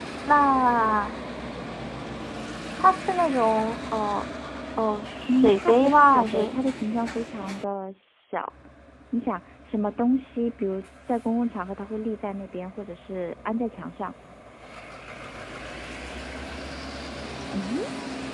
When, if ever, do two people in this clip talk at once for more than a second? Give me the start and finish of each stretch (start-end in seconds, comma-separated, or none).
5.3-6.6